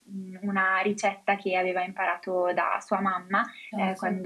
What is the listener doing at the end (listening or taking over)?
listening